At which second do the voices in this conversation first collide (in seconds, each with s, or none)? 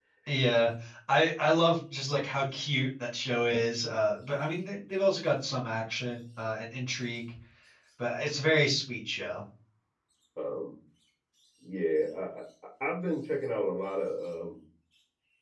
none